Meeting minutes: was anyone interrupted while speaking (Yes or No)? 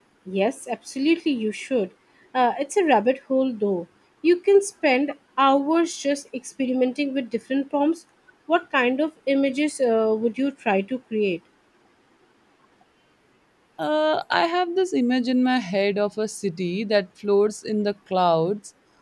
No